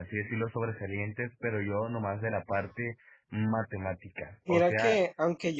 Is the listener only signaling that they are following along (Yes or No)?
No